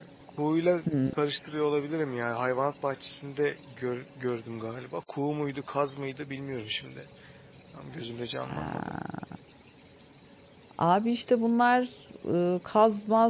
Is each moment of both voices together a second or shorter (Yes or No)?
Yes